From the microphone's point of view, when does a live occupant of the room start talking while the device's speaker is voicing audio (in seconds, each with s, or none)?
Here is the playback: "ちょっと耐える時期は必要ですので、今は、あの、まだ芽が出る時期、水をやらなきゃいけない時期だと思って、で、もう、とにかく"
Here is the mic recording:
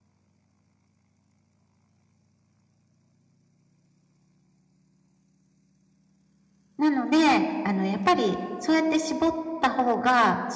6.8 s